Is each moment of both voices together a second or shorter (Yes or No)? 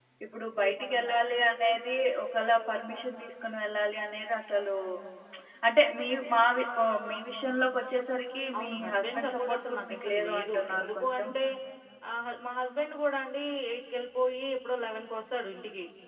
No